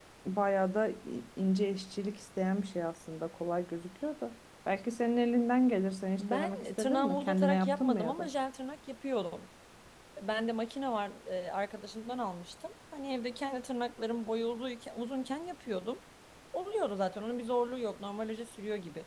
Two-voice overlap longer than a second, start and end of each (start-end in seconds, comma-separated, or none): 6.2-8.3